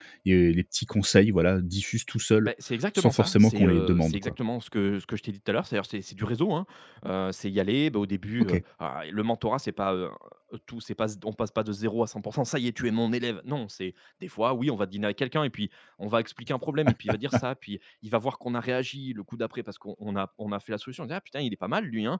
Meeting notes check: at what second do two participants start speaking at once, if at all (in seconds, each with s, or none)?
3.0 s